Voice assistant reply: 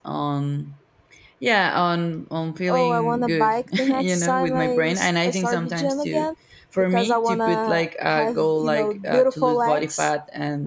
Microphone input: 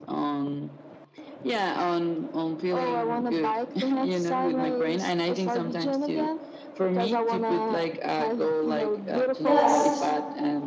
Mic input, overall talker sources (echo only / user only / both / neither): both